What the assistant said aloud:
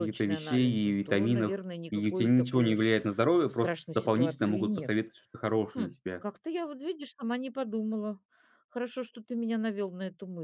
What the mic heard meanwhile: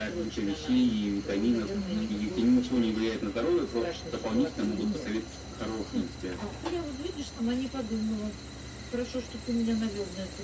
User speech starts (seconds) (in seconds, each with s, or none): 1.8 s